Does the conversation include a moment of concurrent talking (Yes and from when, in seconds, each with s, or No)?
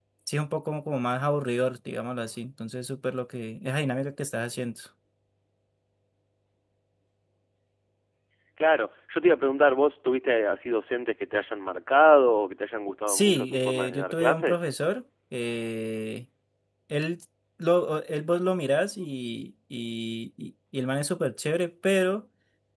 Yes, from 13.1 s